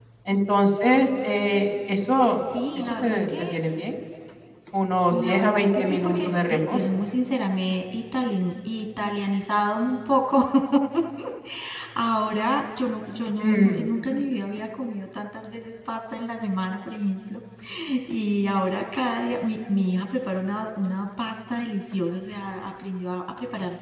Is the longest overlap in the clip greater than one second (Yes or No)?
Yes